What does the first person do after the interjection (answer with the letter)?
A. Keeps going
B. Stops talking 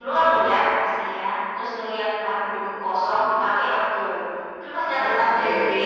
A